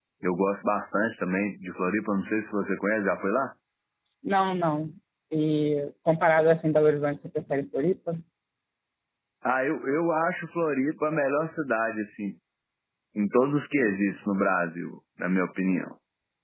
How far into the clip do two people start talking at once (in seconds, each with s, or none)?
none